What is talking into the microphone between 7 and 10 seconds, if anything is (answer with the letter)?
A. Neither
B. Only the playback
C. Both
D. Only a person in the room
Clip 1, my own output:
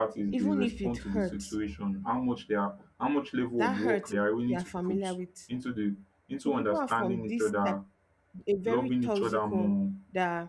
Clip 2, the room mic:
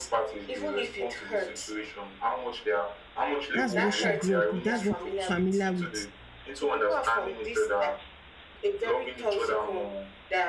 B